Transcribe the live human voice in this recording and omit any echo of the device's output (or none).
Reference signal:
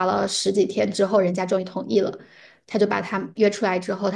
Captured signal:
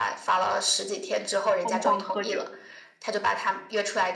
疯狂喝酒，